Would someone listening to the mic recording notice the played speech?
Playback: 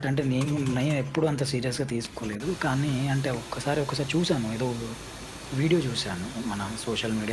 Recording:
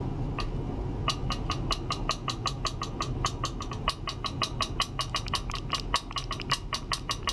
No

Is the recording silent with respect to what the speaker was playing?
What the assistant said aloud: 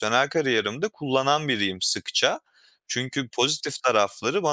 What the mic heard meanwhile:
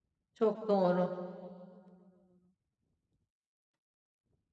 Yes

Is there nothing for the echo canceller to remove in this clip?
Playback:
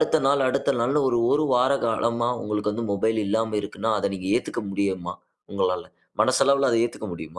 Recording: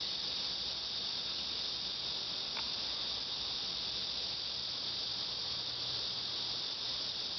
Yes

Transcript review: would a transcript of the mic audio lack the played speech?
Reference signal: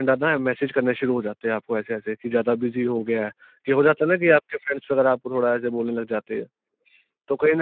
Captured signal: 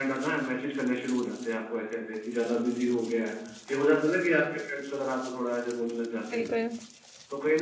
No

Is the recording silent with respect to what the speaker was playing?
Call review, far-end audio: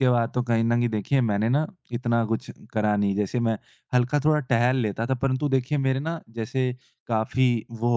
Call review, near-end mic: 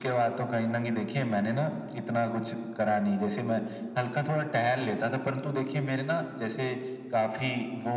No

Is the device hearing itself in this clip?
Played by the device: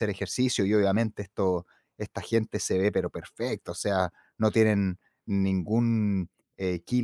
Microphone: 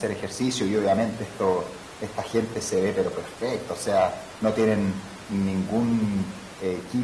Yes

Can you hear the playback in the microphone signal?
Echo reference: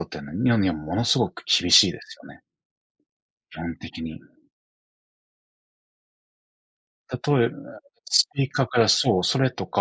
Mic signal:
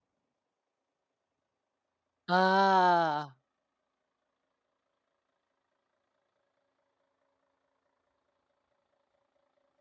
No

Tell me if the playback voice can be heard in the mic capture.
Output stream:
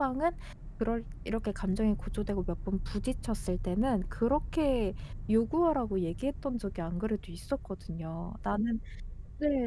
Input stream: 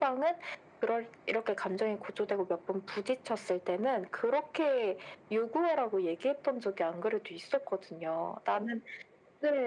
Yes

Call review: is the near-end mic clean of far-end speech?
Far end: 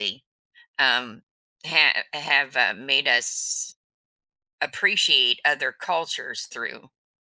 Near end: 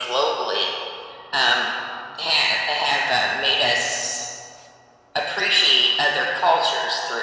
No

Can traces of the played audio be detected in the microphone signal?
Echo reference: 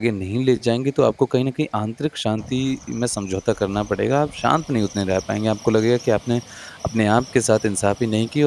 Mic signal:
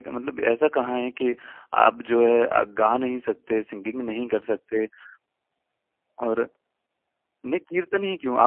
No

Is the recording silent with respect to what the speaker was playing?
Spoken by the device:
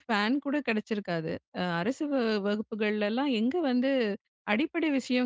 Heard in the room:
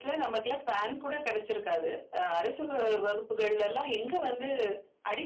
No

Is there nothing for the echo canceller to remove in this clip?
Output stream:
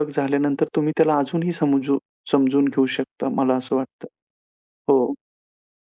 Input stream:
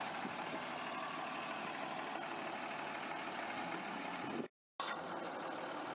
Yes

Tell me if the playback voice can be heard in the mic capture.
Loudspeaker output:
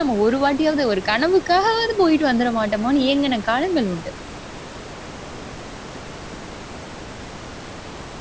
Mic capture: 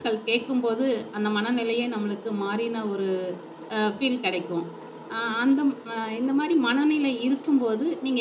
No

